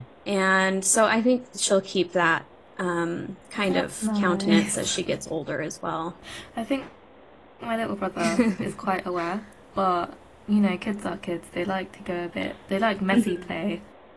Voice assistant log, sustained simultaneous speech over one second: present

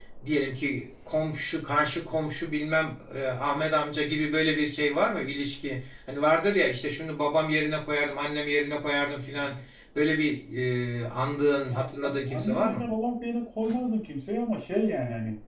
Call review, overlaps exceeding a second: present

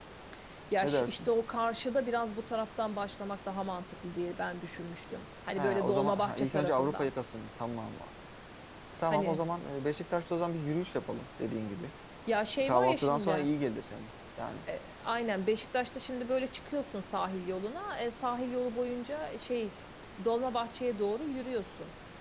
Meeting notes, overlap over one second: present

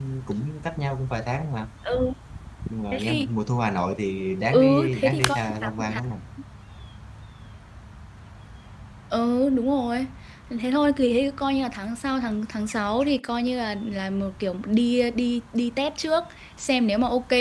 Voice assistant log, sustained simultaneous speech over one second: present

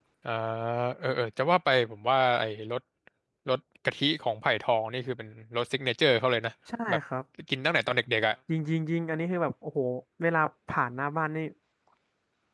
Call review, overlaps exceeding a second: none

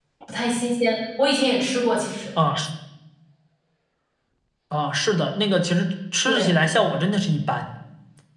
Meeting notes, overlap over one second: none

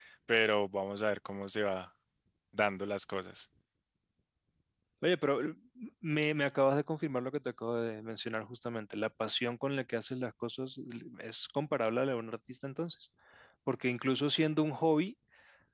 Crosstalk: none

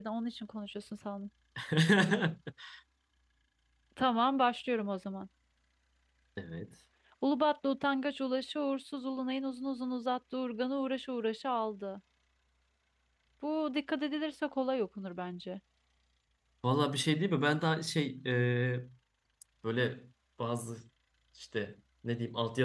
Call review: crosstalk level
none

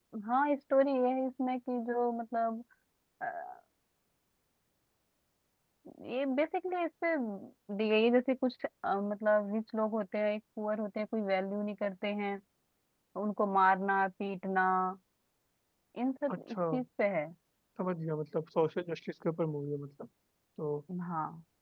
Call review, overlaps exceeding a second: none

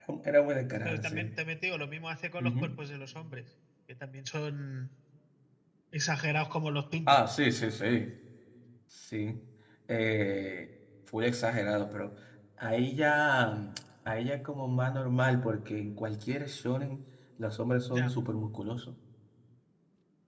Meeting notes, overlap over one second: none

